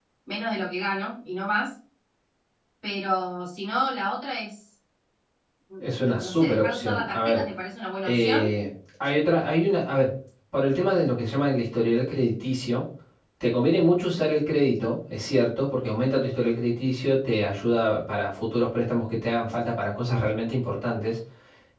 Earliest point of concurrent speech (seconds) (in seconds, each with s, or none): 5.8 s